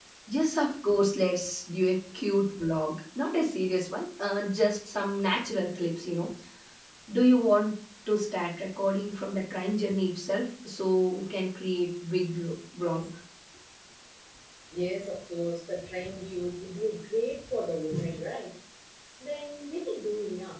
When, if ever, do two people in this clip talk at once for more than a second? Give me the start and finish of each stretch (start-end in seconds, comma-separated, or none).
none